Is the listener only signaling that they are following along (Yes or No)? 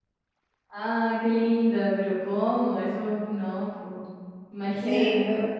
No